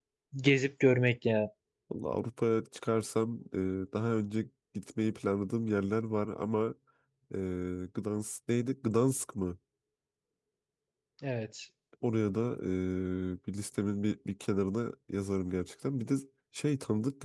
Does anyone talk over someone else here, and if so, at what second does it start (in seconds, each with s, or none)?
none